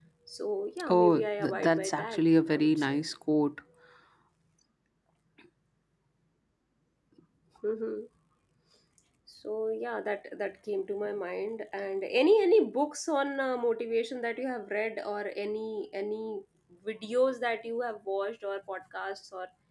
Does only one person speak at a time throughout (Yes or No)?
No